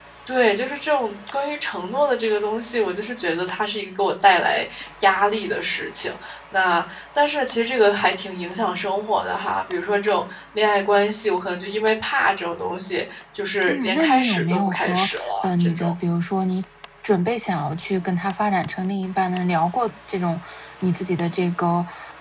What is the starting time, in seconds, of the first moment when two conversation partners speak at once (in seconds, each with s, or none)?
13.7 s